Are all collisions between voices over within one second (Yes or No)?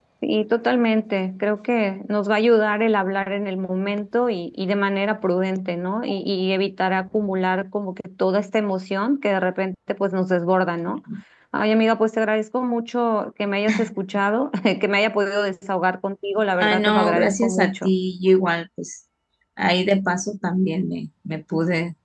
No